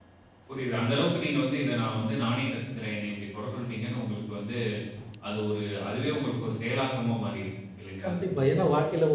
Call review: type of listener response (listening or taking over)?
taking over